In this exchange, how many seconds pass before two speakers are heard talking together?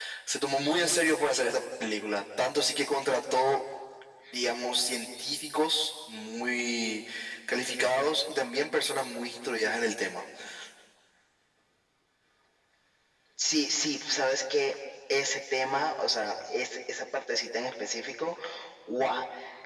none

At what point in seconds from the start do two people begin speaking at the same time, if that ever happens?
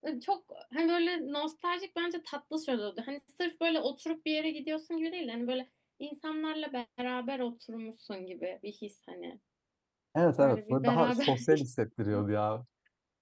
10.4 s

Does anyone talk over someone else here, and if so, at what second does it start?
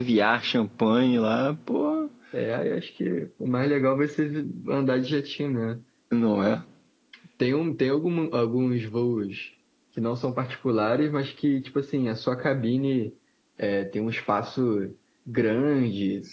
none

